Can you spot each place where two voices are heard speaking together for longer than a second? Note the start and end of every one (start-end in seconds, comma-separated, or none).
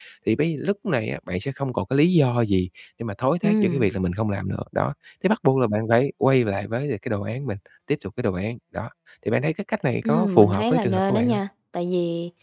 10.0-11.4